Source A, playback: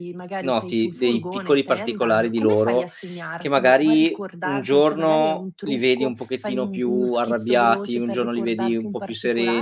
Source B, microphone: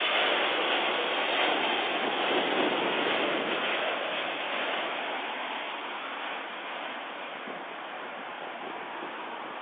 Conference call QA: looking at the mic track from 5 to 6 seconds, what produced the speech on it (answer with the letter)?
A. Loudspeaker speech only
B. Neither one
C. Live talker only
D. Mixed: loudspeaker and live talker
B